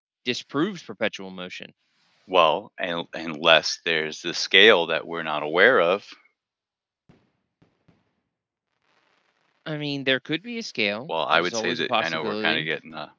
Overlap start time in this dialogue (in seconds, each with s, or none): 11.1 s